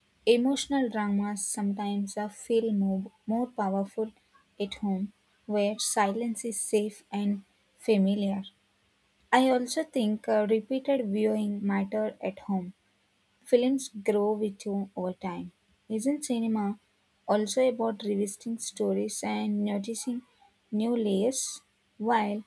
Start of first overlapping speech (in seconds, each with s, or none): none